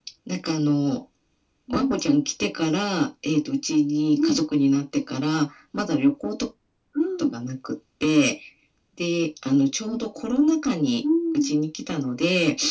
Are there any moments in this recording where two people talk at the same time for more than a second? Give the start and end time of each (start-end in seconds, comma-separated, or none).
none